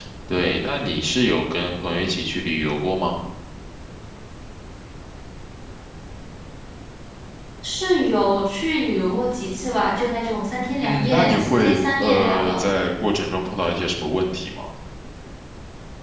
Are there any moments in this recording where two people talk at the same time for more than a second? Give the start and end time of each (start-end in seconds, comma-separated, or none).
10.8-12.6